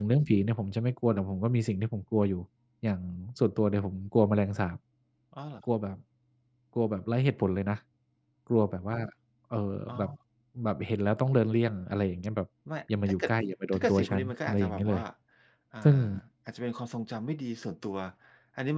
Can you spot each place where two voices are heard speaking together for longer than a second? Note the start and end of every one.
13.7-15.0

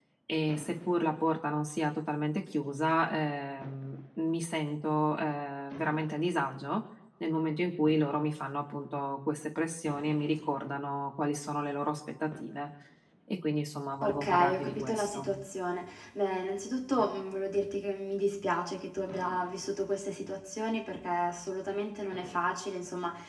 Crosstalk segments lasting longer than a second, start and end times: 14.0-15.3

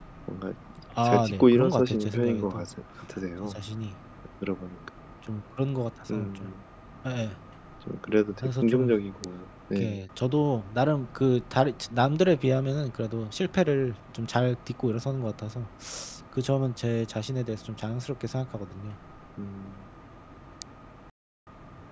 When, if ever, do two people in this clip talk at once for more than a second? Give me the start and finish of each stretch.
1.0-2.7

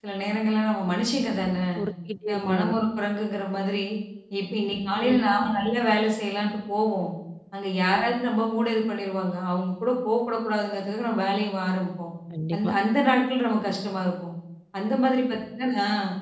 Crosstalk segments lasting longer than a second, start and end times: none

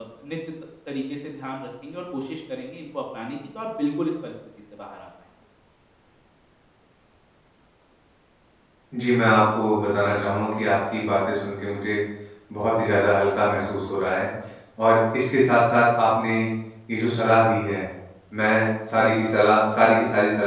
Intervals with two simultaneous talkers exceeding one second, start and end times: none

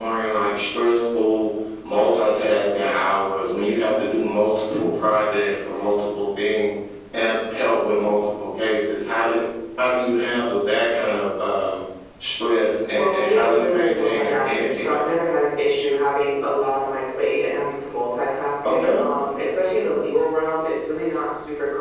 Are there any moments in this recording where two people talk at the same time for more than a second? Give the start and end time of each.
12.9-15.2

